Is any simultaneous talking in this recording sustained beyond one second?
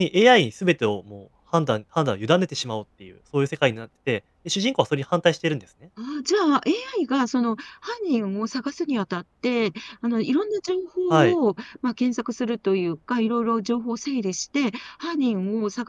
No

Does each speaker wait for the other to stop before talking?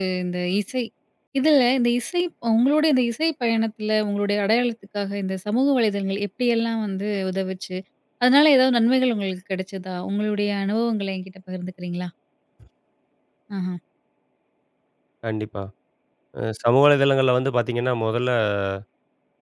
Yes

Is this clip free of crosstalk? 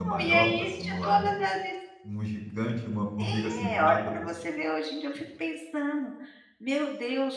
No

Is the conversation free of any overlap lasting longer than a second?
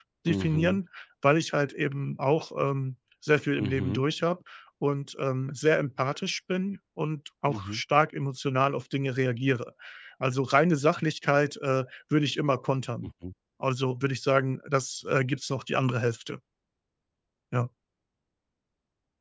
Yes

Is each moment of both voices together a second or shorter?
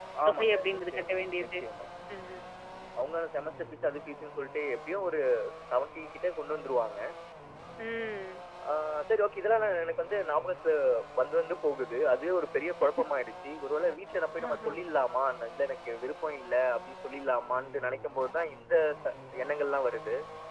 No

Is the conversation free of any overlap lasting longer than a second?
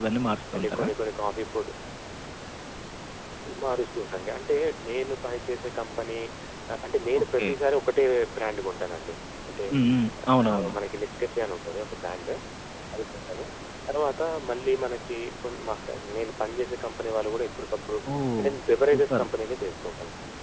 Yes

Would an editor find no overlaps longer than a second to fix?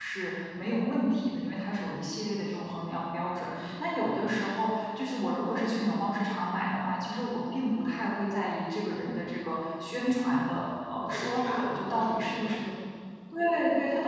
No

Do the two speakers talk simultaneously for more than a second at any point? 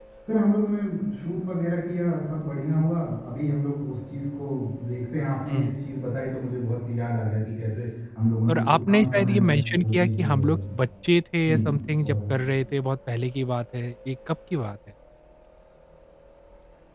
Yes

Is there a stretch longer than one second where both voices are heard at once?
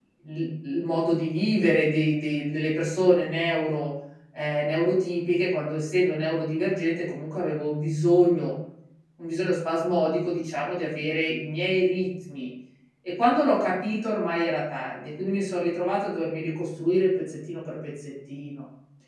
No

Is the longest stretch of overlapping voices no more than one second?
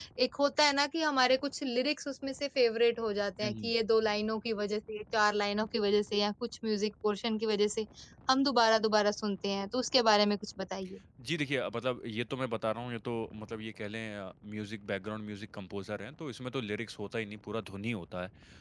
Yes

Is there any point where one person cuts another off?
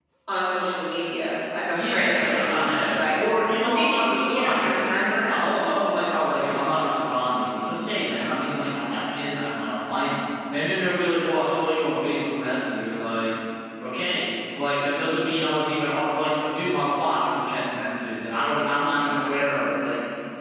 Yes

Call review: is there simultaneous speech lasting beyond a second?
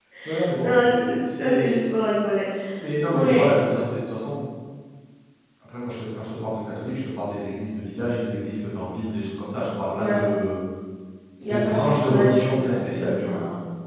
Yes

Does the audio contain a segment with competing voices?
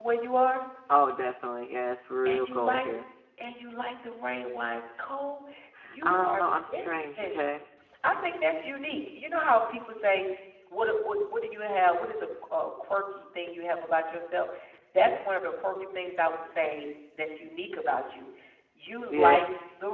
Yes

